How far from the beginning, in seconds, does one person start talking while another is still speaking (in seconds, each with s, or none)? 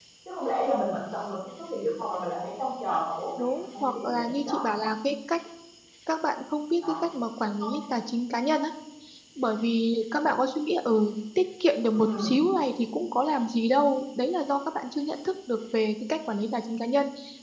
3.4 s